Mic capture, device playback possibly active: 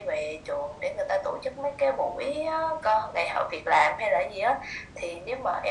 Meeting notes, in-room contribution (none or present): none